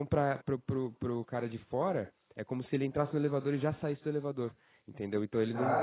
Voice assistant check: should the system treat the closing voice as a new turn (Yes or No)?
Yes